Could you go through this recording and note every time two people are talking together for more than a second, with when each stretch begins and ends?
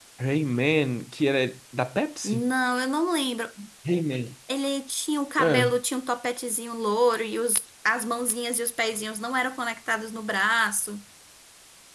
none

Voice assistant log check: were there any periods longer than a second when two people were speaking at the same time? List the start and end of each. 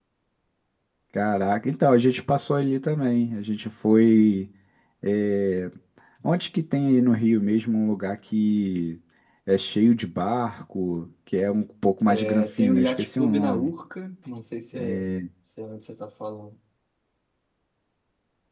12.2-13.7

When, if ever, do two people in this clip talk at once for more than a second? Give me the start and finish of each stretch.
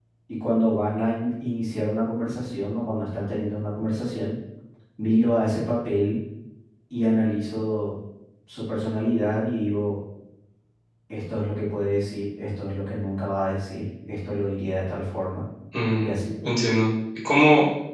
none

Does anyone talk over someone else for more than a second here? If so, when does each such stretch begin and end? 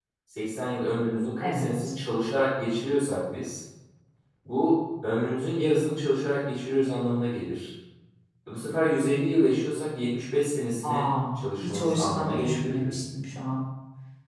11.6-12.9

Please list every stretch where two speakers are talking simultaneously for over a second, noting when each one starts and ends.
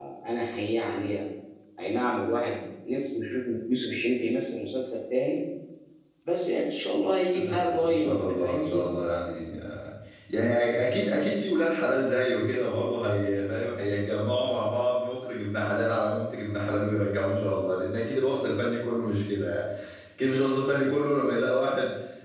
7.3-8.8

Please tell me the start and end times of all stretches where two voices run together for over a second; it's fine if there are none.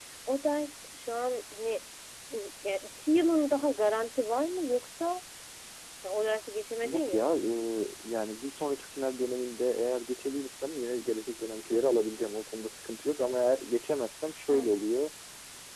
none

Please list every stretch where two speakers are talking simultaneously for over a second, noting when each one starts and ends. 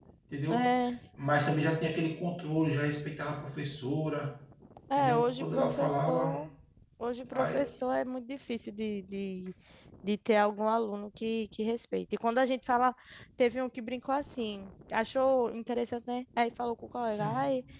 5.0-6.5

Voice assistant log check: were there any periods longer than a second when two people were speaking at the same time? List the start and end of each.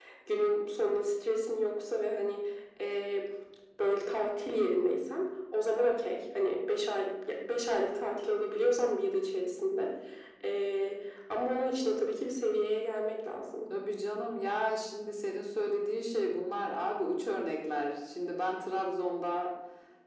none

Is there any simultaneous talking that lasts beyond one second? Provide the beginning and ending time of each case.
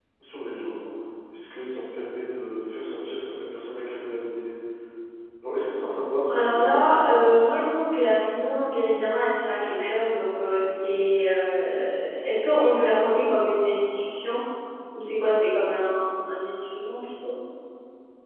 6.3-7.6

